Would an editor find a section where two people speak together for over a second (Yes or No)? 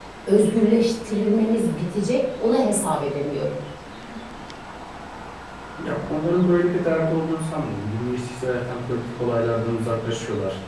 No